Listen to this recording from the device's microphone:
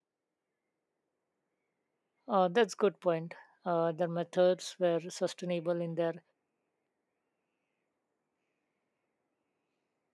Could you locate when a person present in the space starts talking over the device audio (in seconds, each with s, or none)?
2.3 s